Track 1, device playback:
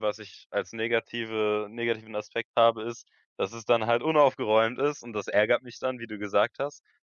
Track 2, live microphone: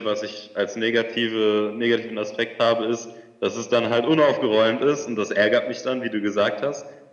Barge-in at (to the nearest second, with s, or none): none